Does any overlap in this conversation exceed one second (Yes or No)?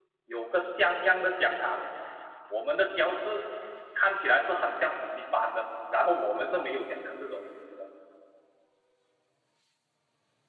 No